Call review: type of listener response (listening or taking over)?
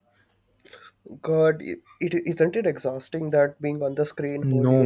taking over